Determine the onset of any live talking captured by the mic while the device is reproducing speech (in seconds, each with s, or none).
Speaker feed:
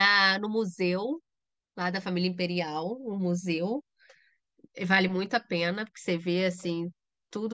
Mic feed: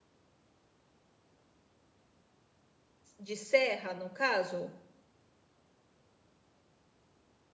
3.2 s